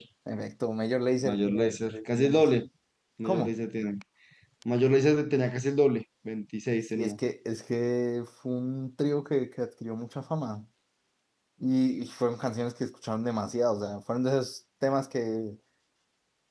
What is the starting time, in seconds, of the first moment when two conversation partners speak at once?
1.2 s

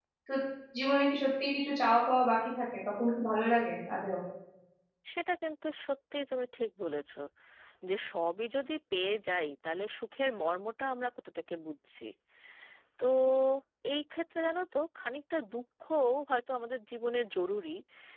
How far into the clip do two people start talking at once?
none

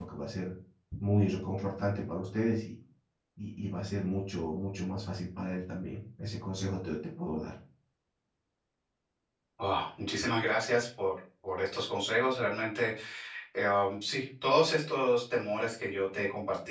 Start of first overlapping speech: none

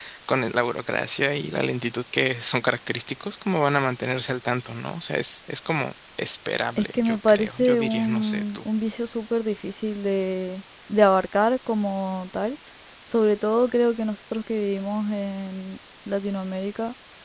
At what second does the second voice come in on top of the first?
6.8 s

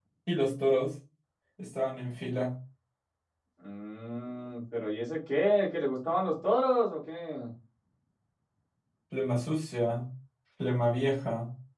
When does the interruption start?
none

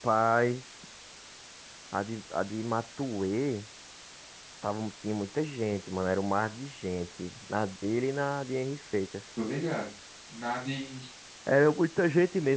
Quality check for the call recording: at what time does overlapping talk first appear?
none

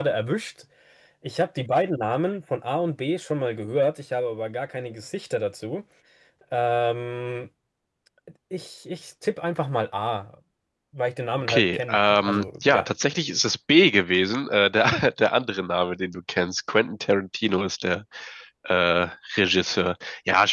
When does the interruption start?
11.5 s

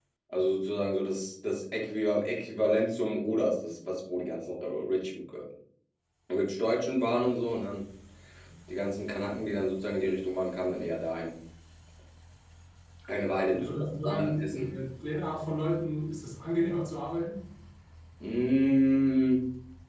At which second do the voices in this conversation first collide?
13.5 s

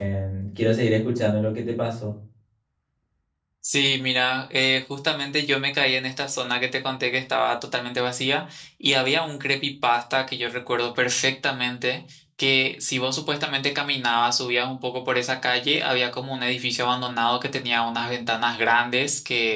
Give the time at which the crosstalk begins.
none

